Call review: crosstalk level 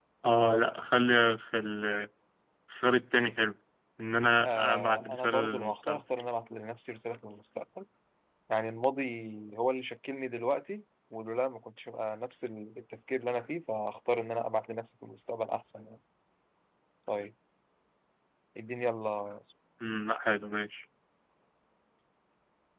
present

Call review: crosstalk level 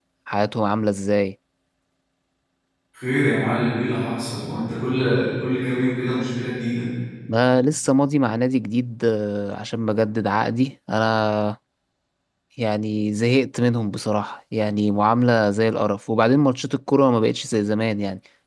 none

